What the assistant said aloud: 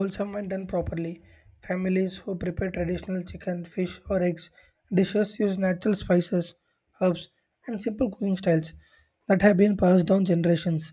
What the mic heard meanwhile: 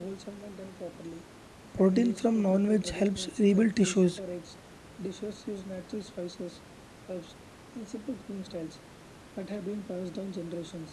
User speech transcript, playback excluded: Protein from non veg helps rebuild tissues,

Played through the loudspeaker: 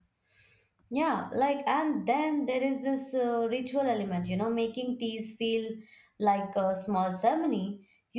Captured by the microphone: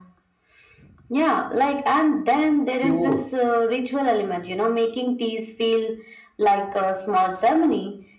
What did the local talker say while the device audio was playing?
pure,

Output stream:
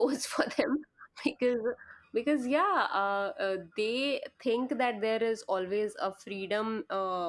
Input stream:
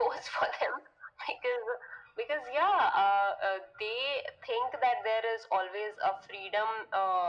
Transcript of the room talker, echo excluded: none

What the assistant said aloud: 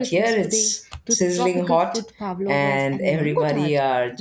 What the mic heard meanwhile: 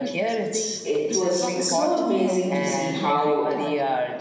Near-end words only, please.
it was so amazing to see how

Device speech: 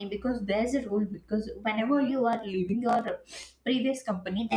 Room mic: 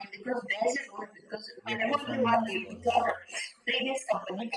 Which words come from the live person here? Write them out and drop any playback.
your performance was.

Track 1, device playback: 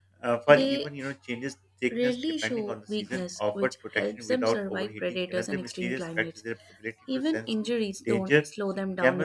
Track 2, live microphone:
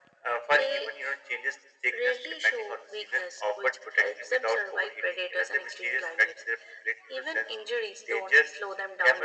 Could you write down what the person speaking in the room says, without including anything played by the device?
none

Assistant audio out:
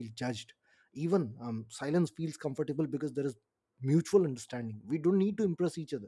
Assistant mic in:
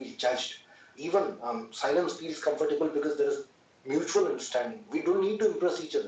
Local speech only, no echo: none

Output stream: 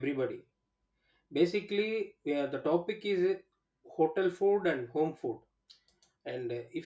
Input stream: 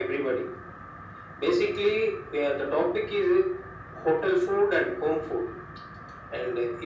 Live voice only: none

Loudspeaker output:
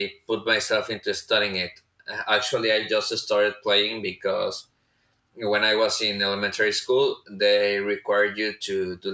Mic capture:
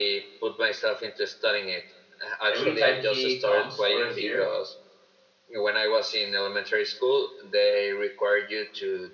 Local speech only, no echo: every time he comes over here,

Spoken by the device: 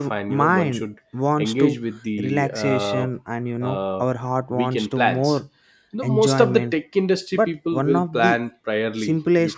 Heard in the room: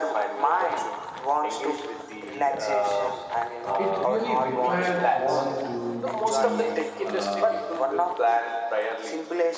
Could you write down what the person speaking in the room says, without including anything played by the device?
it really required one to be uh,

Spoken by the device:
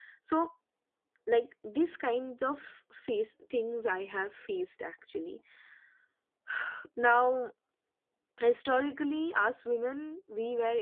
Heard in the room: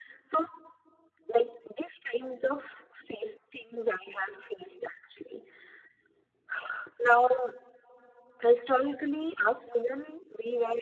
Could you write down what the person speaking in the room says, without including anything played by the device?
none

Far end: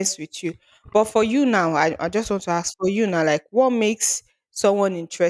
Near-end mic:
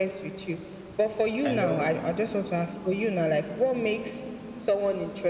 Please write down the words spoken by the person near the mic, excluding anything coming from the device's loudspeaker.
I love

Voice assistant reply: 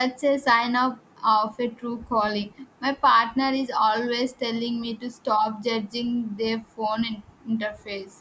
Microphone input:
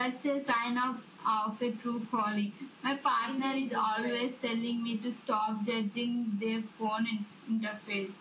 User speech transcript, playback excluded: in a good way.

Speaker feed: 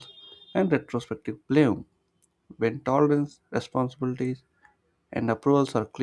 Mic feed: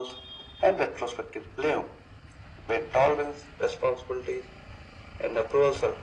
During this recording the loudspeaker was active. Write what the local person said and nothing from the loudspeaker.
none

